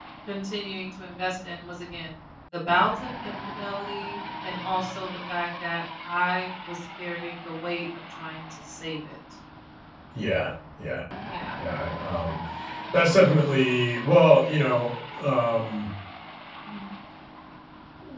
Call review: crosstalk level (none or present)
none